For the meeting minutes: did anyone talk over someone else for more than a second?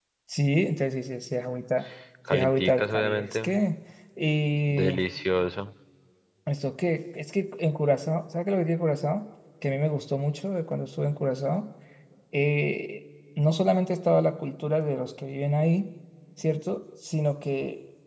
Yes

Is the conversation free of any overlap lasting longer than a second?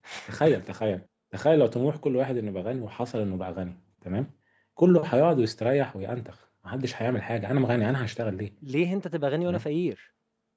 Yes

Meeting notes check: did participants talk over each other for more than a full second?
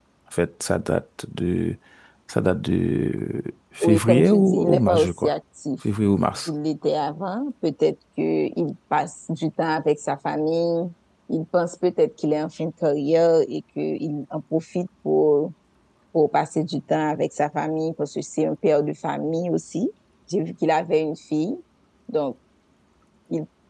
Yes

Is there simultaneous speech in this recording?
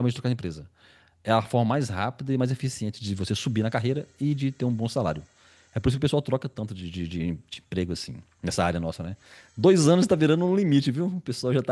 No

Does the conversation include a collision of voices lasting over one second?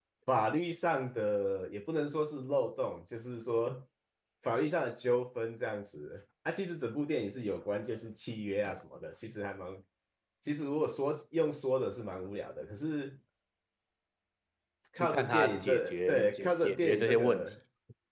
Yes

